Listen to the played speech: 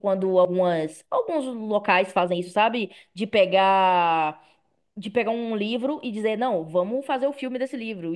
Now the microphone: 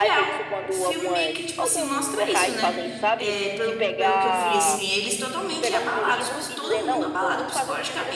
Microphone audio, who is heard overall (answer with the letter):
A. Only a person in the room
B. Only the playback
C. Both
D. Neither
C